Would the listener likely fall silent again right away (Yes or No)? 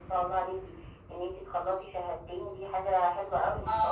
No